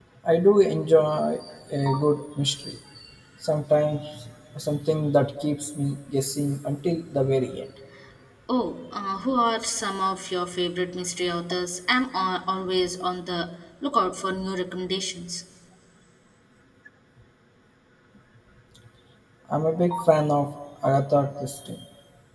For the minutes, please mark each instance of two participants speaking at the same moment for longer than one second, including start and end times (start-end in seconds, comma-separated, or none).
none